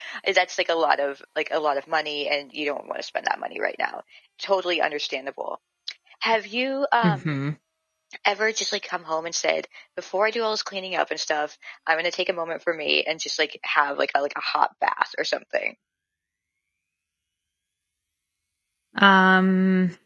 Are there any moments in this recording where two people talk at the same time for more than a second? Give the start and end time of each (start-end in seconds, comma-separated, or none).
none